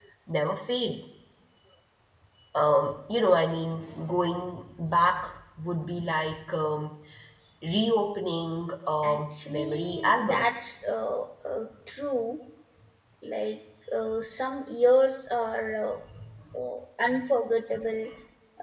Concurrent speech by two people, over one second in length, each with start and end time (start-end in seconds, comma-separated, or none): 9.0-10.5